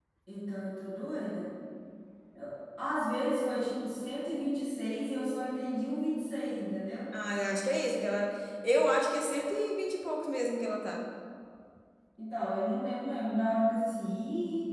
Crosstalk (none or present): none